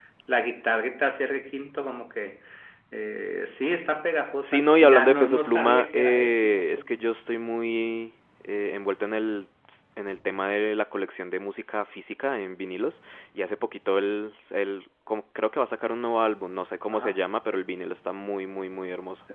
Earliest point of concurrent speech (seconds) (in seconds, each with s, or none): 4.4 s